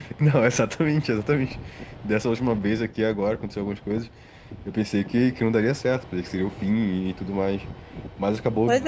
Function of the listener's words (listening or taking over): taking over